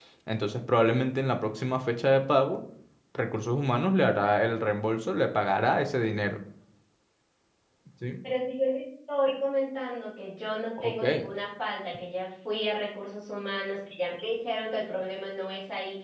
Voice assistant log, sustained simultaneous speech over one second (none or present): none